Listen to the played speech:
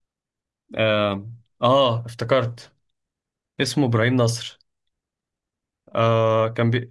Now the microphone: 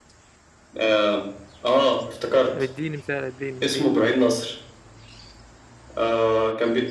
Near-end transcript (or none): طب اديني مثال اديني اديني